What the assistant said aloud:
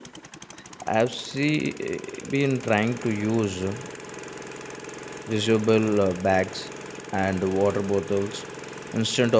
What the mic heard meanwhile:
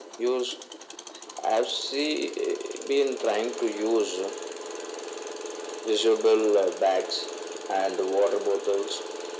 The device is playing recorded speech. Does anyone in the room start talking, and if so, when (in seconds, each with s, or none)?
none